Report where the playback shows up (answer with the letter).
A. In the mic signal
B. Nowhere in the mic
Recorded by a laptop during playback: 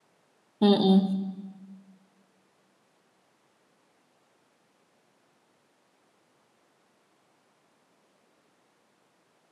B